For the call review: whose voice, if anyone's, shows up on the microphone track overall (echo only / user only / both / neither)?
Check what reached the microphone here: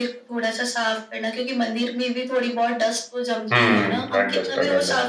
both